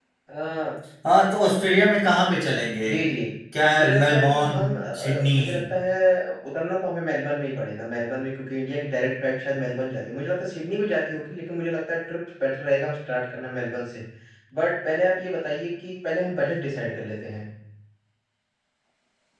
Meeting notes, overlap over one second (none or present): present